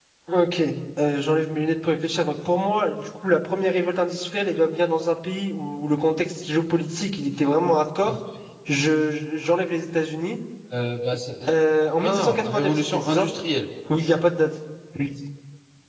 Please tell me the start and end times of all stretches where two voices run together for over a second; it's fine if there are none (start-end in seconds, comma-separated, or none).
12.0-13.3